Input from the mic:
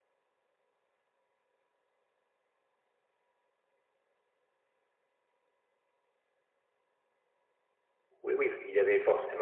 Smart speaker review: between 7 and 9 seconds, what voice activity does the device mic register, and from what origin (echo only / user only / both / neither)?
user only